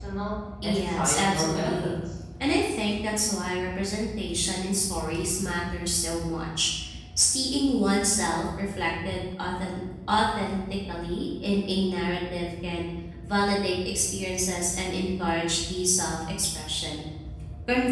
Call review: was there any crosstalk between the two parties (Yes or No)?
Yes